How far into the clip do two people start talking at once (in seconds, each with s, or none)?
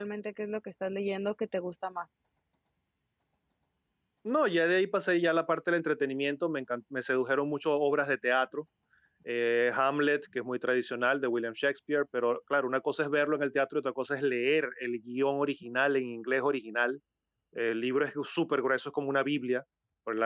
none